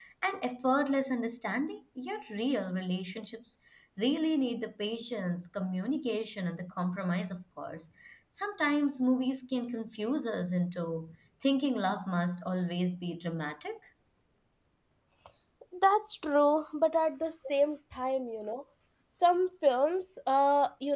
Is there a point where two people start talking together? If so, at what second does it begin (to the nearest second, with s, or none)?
none